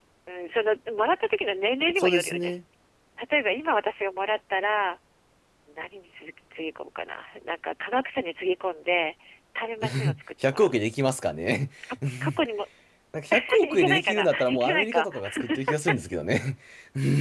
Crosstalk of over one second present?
Yes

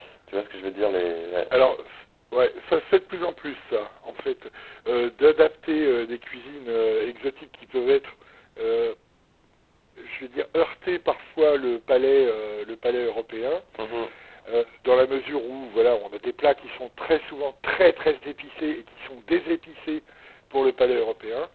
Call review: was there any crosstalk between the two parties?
No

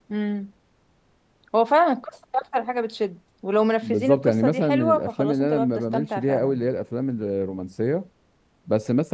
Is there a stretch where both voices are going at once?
Yes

